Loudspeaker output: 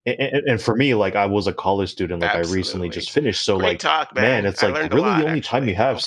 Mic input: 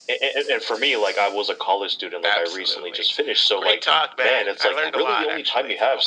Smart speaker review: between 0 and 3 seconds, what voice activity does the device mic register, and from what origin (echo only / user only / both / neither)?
echo only